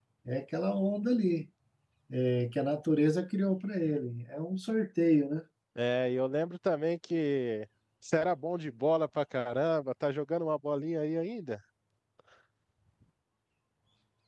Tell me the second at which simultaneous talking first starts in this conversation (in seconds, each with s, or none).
none